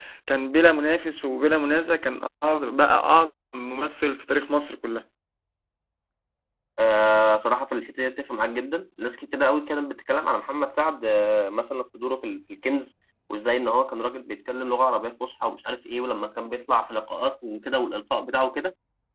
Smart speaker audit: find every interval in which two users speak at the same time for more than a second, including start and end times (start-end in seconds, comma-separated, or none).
none